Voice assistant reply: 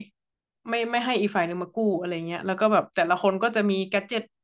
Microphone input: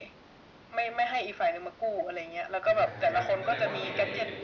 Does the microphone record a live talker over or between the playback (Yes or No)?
Yes